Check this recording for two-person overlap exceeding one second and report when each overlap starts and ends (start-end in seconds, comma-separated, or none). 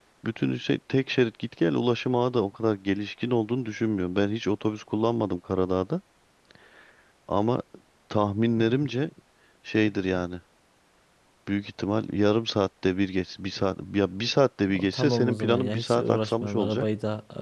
14.7-16.9